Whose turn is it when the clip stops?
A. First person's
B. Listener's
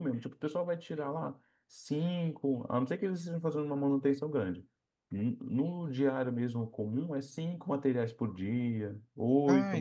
A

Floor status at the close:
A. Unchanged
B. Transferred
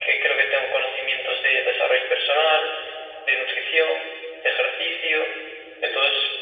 A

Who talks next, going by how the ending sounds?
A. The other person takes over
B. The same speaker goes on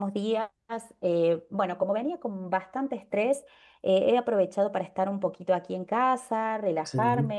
B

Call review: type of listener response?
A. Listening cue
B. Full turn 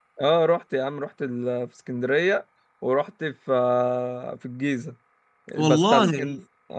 A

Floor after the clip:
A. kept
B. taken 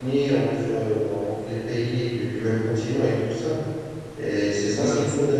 A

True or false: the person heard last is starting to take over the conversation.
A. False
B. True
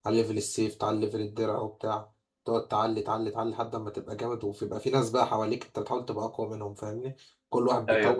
A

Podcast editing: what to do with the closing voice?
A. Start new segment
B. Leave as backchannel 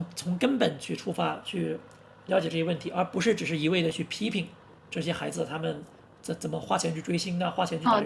A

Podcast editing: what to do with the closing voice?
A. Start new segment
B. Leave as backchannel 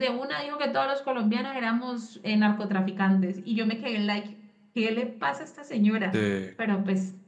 B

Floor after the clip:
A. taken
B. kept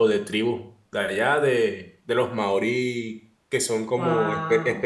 B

